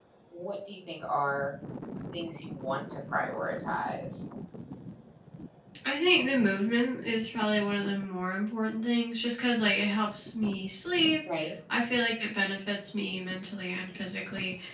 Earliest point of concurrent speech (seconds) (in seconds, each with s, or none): none